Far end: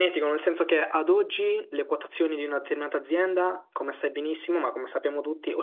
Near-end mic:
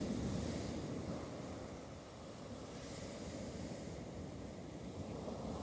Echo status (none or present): none